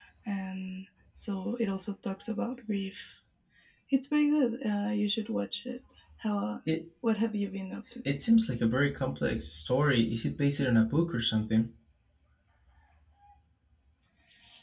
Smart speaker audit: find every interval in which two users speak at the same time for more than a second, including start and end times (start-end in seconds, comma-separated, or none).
none